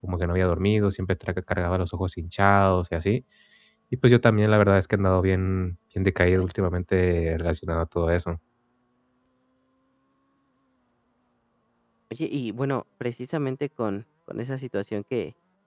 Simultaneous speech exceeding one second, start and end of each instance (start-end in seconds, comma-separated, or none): none